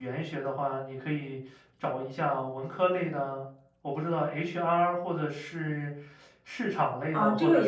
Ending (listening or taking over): taking over